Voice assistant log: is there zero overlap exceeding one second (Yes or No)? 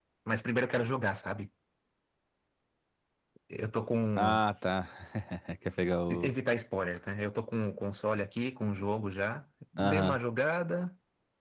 Yes